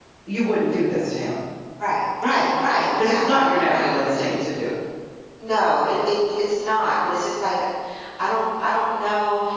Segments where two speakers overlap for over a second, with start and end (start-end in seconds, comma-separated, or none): 3.0-4.3